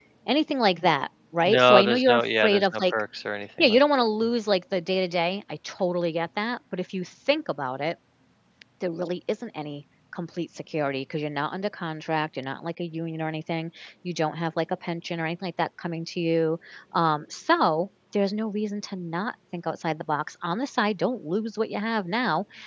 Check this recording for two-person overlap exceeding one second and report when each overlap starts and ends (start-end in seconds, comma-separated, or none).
1.4-2.8